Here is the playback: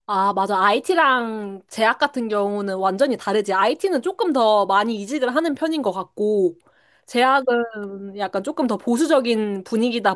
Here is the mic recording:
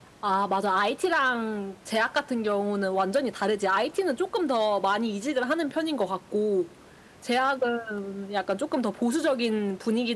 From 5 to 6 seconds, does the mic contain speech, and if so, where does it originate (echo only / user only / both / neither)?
echo only